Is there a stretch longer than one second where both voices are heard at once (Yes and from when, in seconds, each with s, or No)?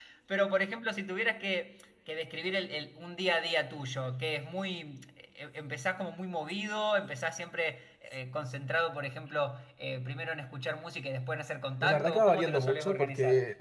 Yes, from 11.8 s